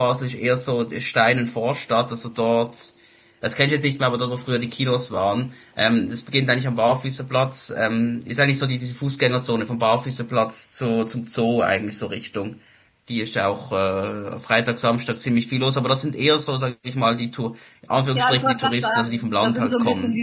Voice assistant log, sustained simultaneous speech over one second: present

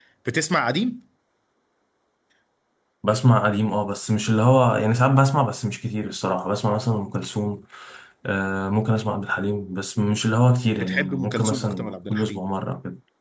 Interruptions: present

